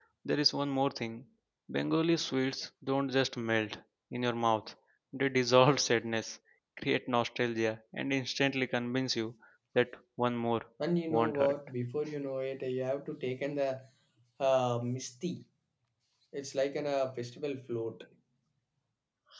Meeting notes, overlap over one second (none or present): none